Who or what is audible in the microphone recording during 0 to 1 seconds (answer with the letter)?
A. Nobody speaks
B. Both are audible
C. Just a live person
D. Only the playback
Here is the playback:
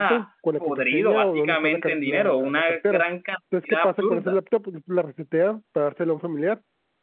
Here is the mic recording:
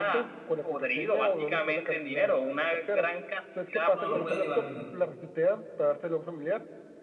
D